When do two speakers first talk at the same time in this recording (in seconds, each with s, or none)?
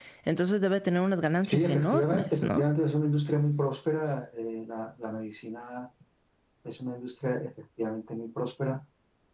1.4 s